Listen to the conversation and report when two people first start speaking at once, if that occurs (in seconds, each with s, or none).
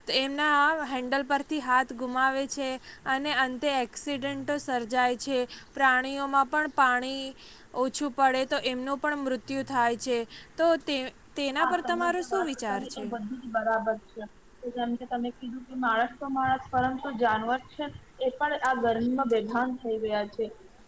11.6 s